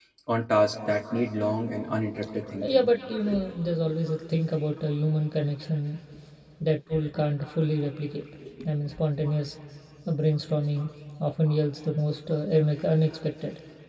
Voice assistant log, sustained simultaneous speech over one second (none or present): none